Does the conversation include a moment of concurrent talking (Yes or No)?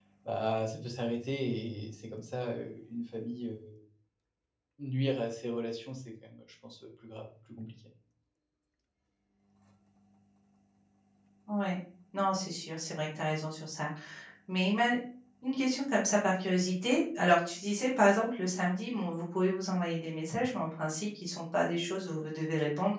No